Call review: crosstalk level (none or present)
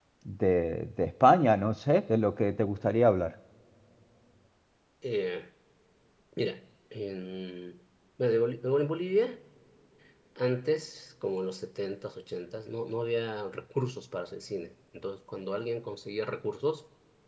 none